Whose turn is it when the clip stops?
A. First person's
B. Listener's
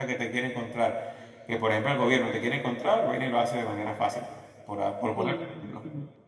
B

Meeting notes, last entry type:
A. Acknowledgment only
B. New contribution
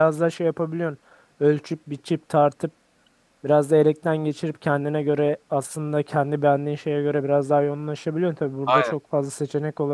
A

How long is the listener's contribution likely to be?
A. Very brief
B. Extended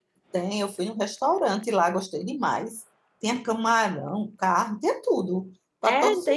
B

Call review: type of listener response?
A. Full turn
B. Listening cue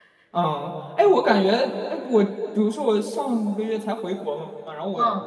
B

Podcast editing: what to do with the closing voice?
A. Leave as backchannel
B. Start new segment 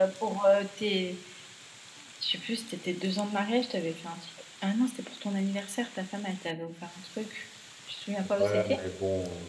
B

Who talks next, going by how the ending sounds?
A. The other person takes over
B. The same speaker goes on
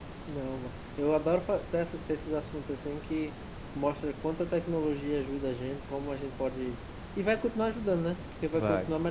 B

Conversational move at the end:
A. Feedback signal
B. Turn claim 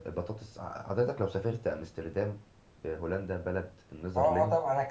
B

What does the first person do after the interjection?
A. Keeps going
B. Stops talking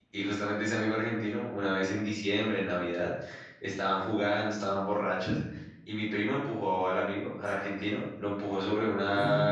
A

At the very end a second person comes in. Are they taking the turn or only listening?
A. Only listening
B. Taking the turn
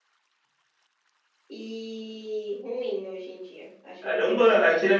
B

